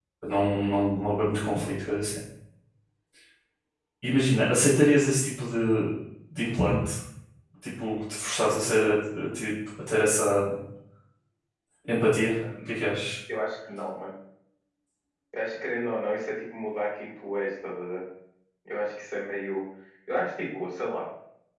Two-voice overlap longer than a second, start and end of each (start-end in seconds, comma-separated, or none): none